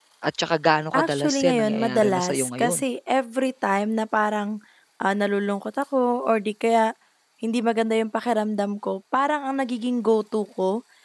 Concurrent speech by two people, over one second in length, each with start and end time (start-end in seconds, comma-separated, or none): 1.0-2.8